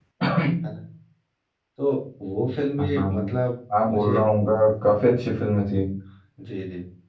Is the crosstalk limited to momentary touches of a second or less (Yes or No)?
Yes